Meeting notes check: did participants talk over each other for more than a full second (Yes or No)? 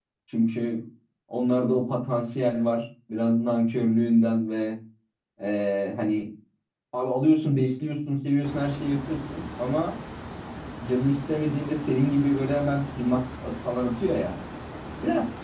No